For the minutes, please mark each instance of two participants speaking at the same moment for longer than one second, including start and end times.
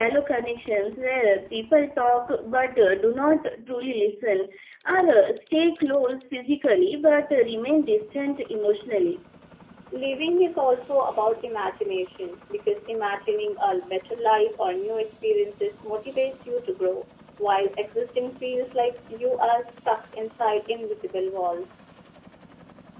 none

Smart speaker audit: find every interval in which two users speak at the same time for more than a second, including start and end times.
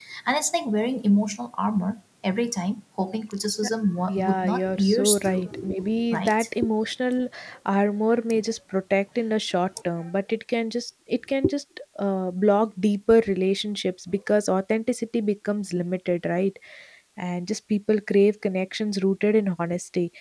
4.1-5.5

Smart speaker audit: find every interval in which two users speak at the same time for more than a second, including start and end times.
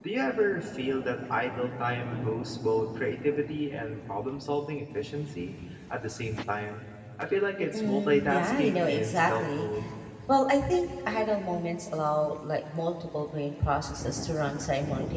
7.7-9.7

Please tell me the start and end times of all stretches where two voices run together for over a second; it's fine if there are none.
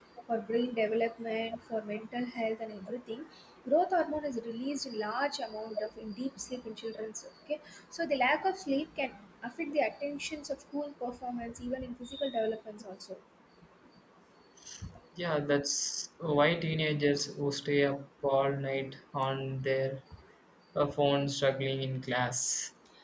none

